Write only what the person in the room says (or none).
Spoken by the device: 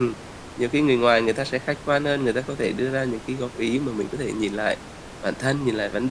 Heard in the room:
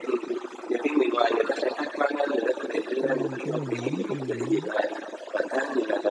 ừ, cái này đúng, cái này đúng.